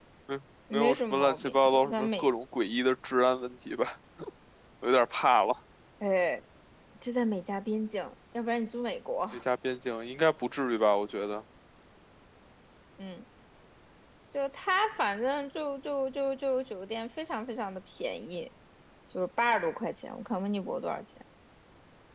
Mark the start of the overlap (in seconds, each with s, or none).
0.7 s